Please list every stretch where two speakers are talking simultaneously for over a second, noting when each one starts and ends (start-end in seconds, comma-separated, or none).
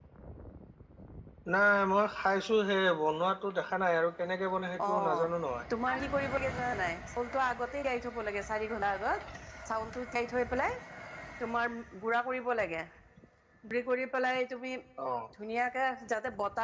none